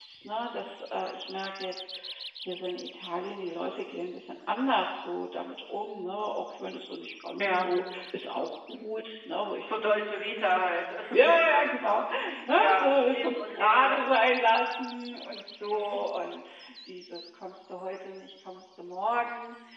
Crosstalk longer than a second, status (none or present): present